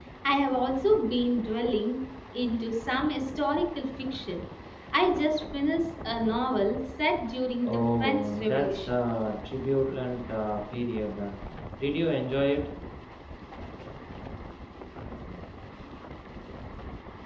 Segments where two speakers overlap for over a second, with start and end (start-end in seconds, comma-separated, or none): 7.6-8.9